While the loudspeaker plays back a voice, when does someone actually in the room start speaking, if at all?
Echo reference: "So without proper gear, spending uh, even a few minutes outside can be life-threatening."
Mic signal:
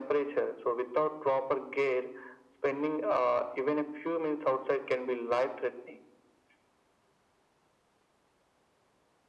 none

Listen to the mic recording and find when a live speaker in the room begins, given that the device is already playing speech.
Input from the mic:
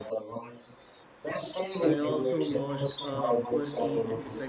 2 s

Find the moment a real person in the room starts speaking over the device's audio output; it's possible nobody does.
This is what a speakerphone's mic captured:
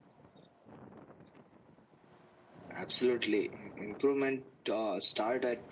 none

